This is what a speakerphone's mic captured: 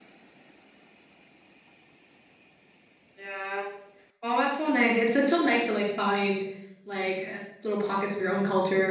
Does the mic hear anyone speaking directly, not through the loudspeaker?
Yes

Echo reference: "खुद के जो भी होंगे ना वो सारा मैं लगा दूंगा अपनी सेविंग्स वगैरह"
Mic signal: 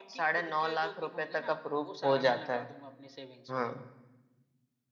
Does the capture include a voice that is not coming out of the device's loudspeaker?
Yes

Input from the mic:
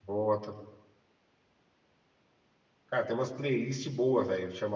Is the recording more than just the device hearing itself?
Yes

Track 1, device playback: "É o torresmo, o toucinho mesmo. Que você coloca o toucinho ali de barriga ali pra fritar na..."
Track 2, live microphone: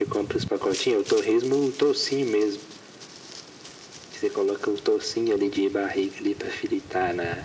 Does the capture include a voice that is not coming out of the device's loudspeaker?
No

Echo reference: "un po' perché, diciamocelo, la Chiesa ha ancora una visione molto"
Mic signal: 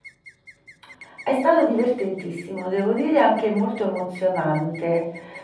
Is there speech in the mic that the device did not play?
Yes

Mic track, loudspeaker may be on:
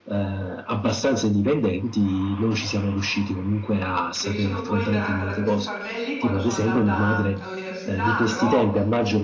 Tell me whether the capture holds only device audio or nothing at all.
No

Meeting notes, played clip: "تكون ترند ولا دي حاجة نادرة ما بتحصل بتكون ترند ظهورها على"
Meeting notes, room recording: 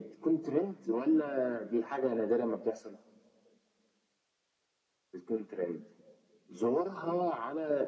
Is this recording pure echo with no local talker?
Yes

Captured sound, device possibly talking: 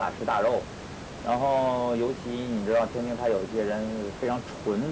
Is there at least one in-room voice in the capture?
No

